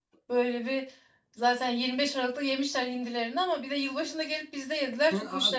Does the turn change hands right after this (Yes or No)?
Yes